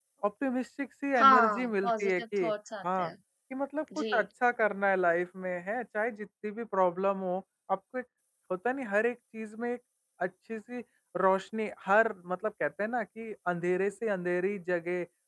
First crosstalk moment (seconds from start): 1.2 s

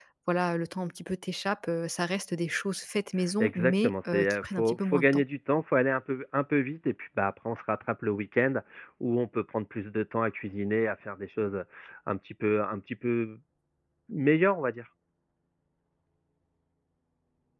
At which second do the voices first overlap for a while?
3.4 s

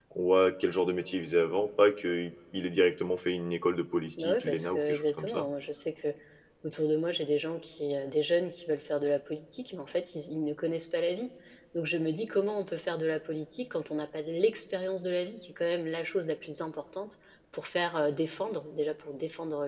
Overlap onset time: 4.2 s

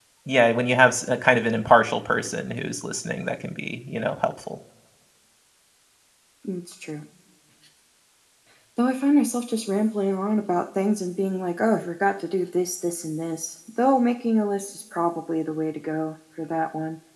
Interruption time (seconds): none

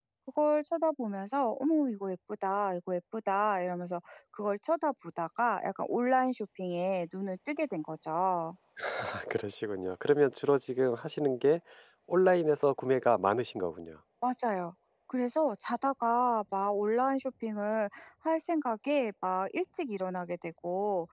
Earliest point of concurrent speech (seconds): none

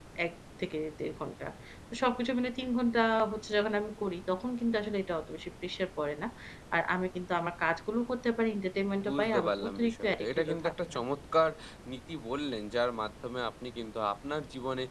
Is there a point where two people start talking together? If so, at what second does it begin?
9.0 s

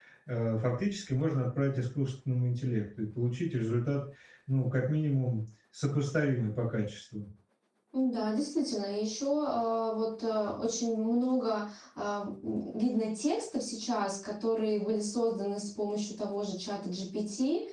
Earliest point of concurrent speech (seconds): none

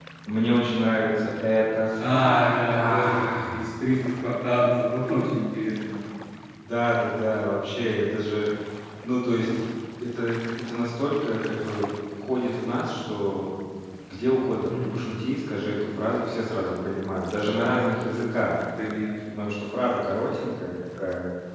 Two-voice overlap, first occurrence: 2.0 s

